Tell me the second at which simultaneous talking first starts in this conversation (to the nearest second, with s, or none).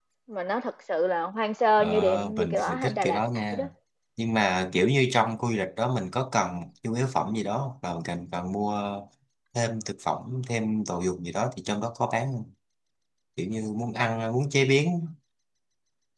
2 s